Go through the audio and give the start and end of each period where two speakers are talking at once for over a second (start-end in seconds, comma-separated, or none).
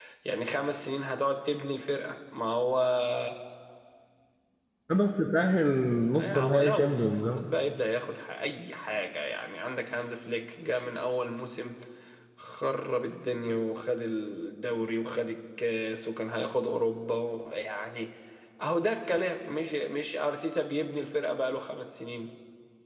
6.1-7.4